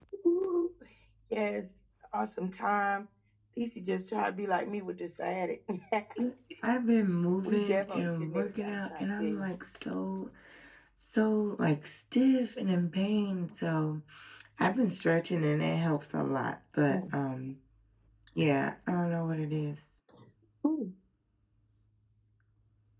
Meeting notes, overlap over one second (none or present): present